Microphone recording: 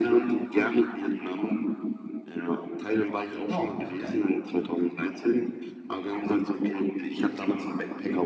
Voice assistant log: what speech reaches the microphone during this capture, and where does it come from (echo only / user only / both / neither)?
both